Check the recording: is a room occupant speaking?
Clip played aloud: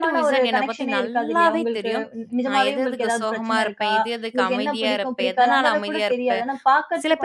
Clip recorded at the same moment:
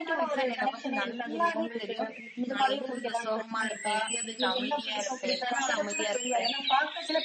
No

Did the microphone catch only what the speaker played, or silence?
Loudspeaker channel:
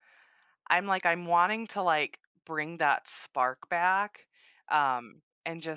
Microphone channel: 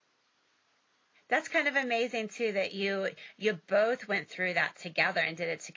No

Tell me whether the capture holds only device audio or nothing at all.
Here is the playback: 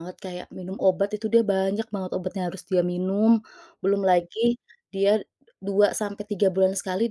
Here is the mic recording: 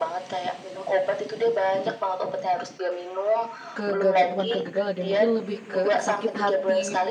No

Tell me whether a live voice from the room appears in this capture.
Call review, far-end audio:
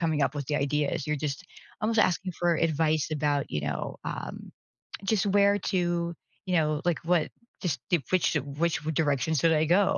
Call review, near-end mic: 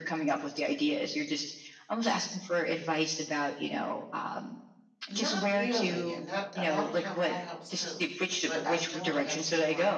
Yes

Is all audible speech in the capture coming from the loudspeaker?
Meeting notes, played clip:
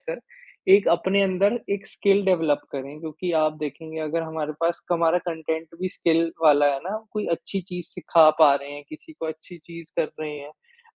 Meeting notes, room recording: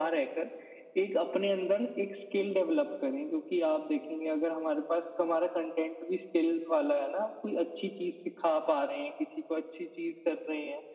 Yes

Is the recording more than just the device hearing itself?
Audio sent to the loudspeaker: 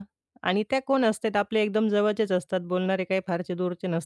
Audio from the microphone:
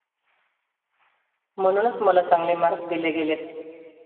Yes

